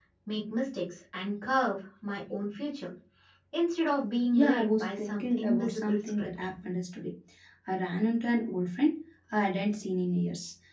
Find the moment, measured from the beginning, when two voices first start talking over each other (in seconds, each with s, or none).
4.3 s